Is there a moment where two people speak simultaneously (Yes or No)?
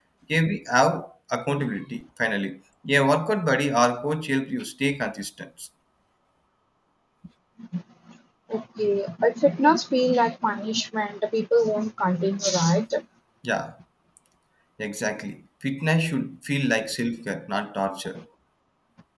No